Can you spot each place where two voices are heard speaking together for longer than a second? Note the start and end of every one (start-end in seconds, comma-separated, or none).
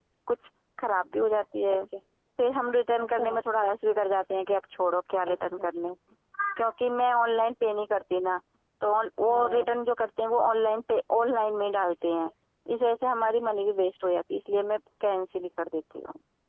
none